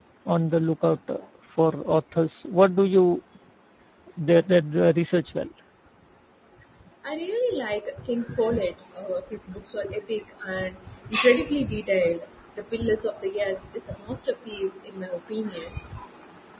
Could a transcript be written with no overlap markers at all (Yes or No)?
Yes